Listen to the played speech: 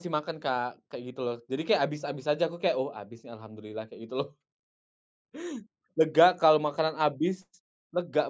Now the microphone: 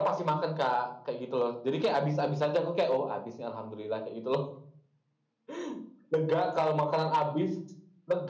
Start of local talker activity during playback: none

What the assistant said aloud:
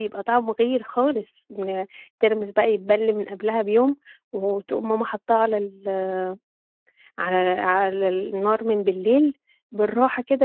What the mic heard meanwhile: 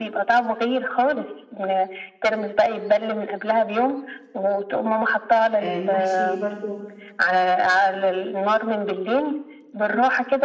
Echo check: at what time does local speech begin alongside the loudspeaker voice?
5.6 s

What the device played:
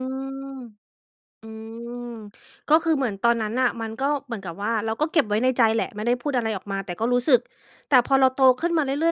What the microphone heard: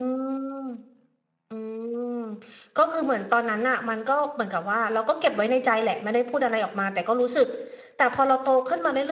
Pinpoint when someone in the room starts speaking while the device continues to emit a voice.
none

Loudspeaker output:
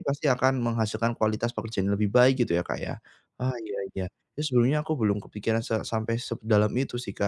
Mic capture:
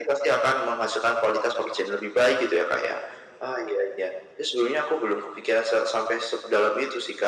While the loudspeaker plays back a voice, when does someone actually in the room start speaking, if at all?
none

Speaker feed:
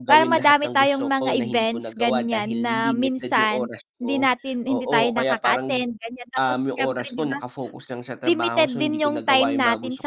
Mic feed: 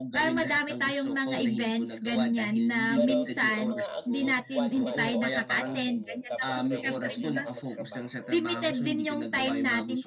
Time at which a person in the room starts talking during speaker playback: 2.9 s

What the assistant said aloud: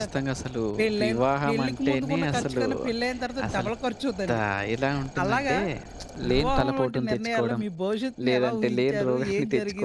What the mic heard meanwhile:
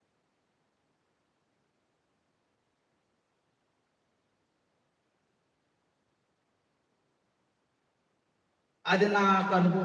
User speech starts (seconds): 8.9 s

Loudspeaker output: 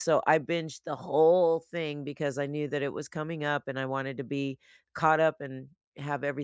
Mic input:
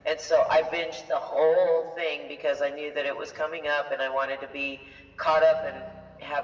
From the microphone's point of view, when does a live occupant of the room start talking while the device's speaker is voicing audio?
none

